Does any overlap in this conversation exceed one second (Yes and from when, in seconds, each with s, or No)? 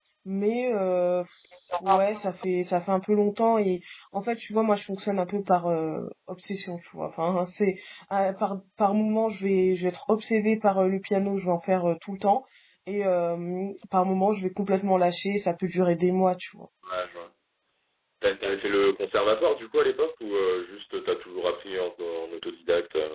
No